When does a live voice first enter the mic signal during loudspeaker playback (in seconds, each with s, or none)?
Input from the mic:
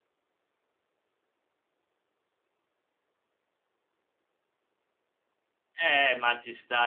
5.8 s